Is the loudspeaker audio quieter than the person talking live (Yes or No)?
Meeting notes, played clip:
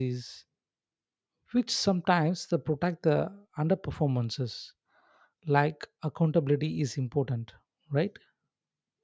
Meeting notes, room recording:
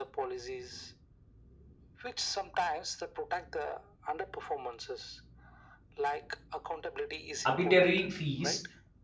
Yes